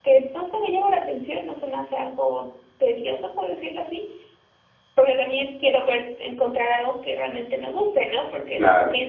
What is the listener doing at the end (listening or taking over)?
listening